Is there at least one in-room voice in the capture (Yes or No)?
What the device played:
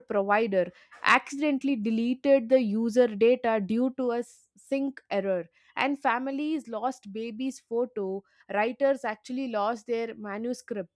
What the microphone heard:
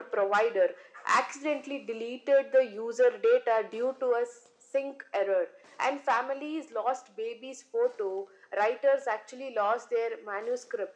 No